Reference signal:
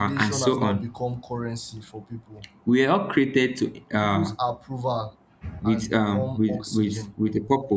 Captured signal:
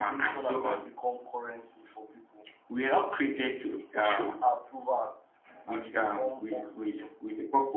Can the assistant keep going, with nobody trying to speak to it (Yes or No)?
No